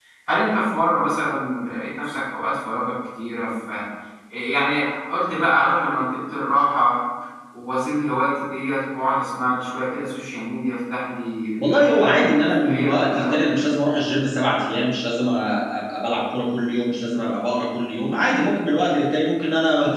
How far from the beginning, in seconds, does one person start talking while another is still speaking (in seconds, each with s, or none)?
11.6 s